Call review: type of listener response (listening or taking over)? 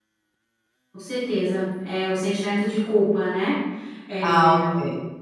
taking over